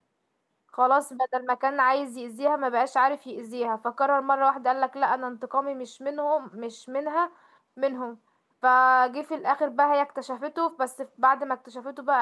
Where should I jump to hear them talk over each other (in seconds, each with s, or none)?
none